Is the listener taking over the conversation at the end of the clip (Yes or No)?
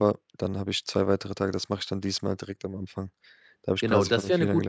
Yes